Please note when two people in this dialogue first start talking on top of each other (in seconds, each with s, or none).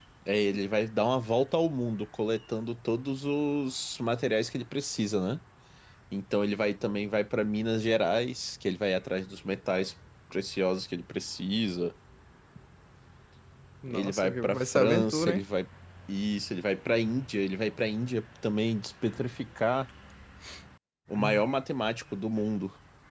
13.9 s